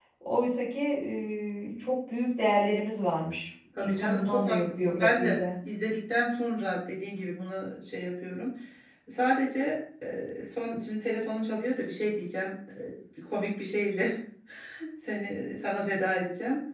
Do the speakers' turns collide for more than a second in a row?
Yes, from 3.8 s

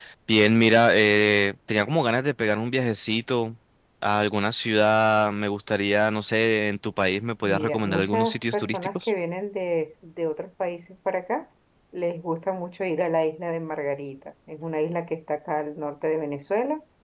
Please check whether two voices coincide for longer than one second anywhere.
Yes, from 7.4 s

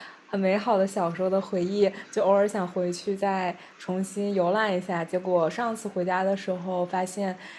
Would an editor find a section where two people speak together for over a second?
No

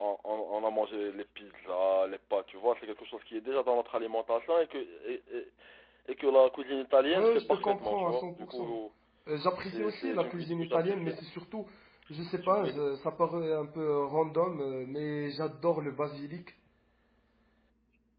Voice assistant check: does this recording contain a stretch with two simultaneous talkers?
Yes, from 7.1 s

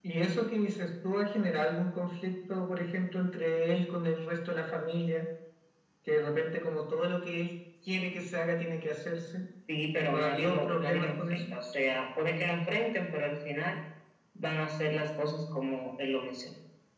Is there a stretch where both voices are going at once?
Yes, from 10.1 s

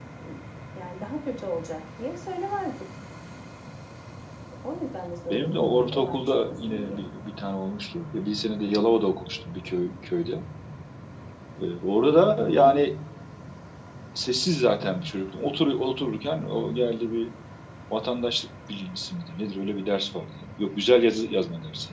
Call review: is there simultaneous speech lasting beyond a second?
Yes, from 5.3 s

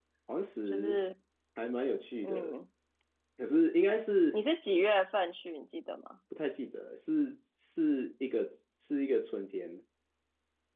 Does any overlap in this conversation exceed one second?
No

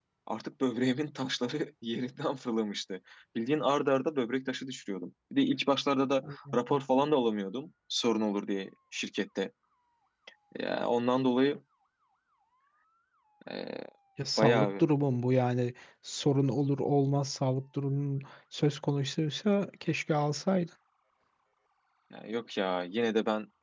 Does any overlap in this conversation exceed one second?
No

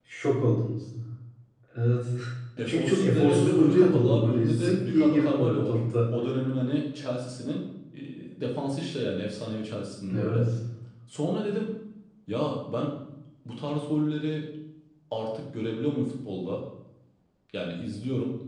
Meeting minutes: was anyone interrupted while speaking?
Yes, from 2.6 s

